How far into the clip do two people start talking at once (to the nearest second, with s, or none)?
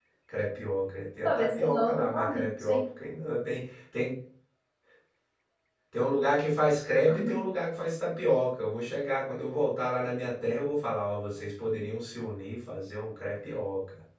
1 s